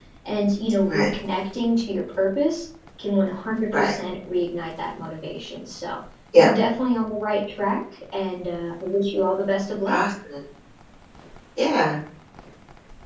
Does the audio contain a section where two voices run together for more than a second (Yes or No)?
No